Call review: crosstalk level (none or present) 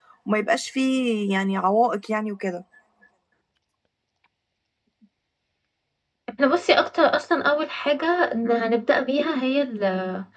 none